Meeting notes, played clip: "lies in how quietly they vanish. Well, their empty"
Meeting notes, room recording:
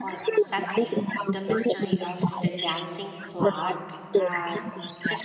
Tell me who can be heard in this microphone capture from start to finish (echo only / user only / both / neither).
both